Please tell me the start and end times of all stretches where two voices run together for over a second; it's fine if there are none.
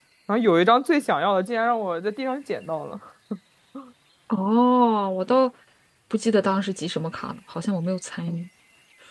none

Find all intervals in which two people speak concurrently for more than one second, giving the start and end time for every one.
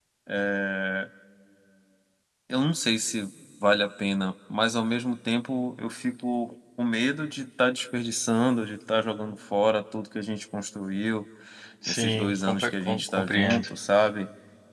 11.9-13.7

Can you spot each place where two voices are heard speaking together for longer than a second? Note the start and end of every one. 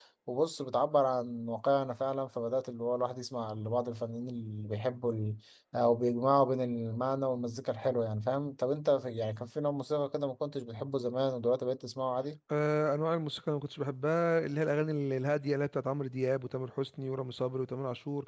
none

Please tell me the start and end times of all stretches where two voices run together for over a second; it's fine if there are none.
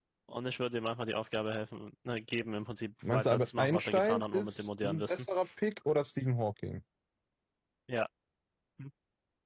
3.0-5.3

